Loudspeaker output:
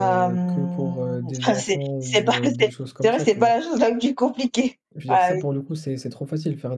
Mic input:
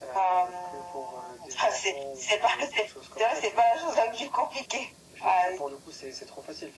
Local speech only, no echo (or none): none